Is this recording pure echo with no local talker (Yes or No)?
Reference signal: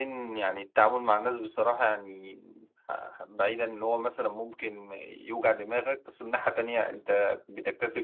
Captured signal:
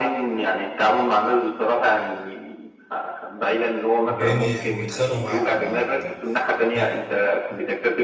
No